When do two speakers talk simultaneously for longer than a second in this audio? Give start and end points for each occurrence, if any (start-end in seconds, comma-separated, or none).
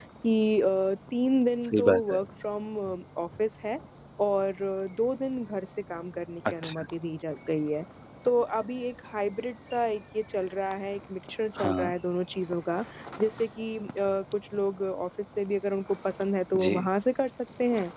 none